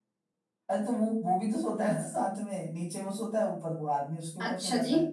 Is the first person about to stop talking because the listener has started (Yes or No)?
Yes